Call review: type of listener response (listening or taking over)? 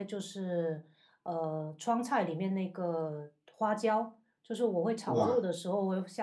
listening